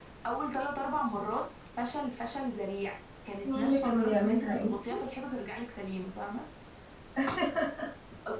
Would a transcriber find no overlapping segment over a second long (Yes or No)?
No